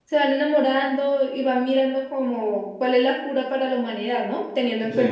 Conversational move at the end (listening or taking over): listening